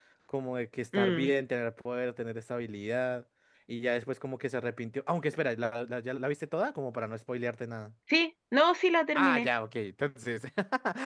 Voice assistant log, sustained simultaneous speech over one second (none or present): none